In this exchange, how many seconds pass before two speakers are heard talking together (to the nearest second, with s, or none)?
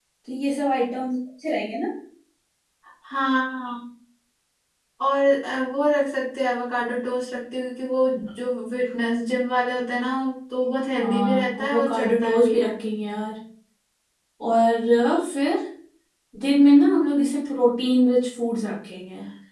11 s